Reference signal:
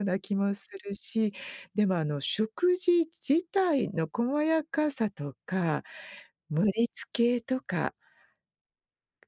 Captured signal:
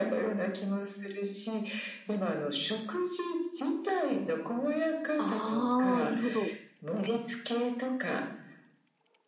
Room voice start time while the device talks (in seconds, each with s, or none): 5.2 s